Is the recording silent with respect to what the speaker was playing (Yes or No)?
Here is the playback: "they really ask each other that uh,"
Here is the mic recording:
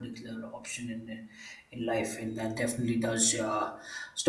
Yes